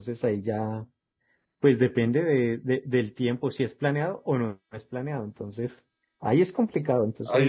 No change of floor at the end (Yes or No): No